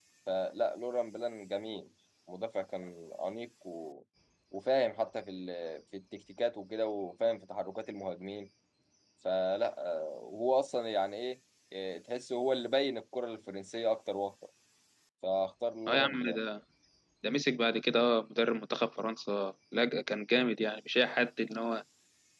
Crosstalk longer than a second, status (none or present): none